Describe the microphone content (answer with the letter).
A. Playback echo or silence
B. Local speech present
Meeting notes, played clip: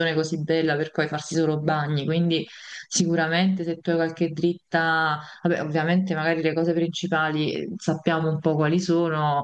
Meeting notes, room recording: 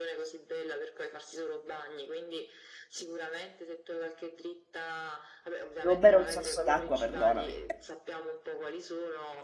B